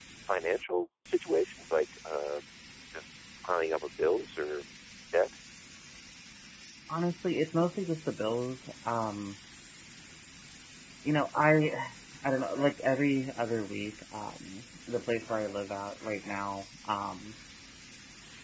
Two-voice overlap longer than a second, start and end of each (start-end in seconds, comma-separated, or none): none